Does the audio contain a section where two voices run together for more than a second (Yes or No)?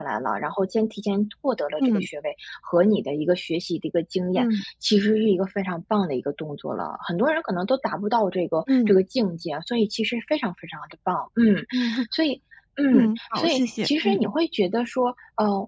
Yes